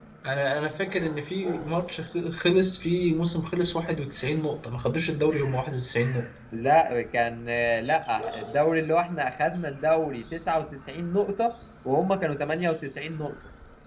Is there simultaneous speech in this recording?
No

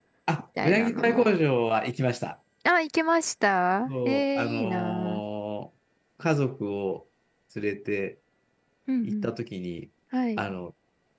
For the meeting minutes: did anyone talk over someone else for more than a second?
Yes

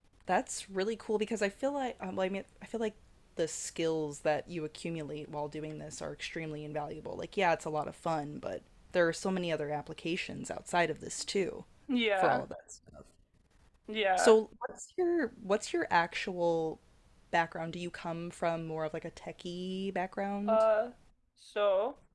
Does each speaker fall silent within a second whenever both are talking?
Yes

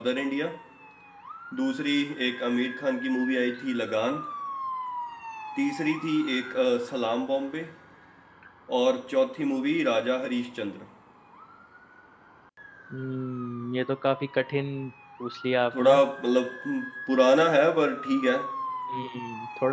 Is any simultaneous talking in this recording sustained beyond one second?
No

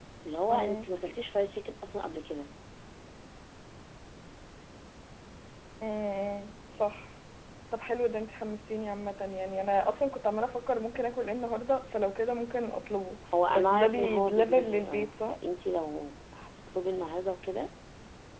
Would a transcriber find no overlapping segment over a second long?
No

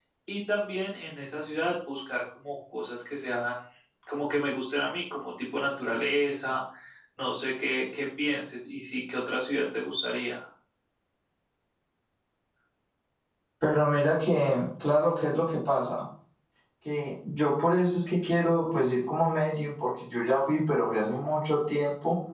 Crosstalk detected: No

